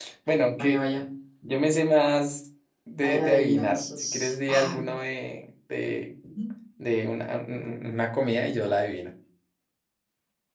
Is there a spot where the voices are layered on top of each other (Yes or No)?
Yes